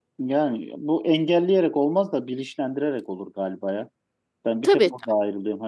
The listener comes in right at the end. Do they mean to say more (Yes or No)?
No